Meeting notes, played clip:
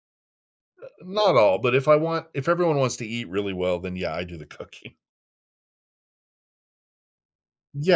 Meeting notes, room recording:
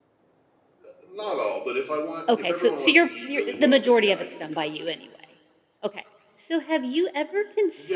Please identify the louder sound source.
user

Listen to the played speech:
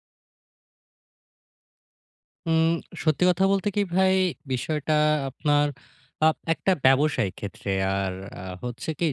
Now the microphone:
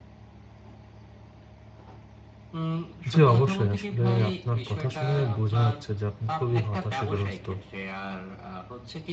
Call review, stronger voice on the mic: user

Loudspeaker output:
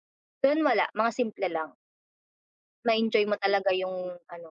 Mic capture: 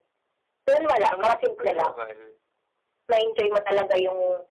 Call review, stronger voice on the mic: echo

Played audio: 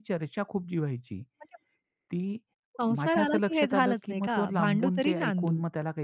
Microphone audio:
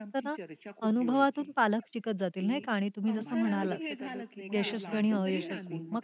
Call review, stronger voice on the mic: user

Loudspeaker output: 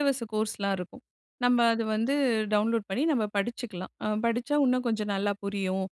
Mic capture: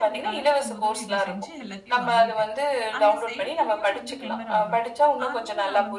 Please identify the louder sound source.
echo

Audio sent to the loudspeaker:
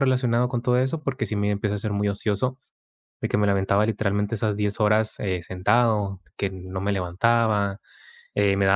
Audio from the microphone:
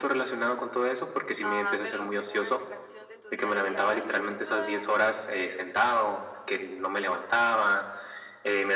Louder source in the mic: echo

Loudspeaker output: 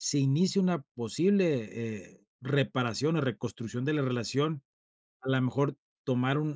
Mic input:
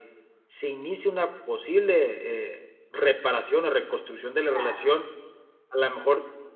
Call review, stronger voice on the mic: echo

